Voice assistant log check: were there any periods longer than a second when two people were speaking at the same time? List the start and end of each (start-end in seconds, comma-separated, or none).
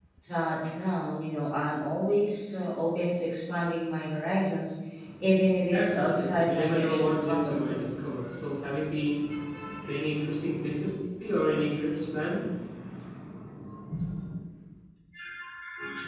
5.7-8.0